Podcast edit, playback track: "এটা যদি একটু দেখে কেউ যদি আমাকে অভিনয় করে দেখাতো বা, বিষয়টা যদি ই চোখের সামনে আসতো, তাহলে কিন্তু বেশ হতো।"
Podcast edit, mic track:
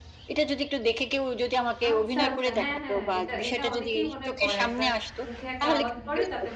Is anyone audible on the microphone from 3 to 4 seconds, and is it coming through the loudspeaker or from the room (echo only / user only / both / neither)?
both